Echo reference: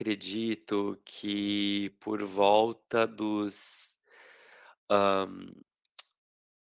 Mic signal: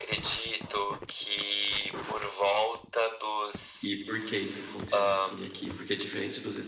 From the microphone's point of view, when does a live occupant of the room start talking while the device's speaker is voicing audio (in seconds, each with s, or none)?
3.8 s